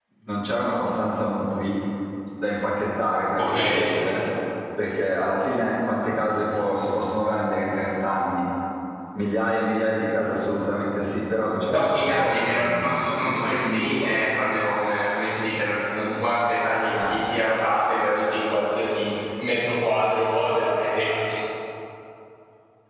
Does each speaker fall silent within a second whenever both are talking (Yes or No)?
No